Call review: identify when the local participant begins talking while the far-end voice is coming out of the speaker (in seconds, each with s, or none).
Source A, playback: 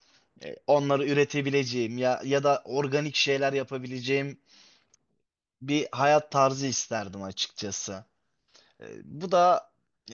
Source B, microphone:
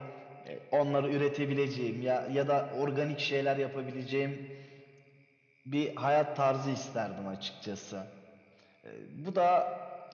none